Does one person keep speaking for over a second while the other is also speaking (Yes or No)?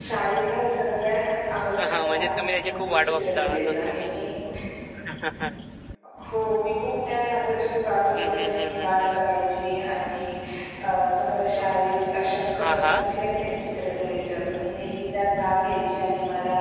Yes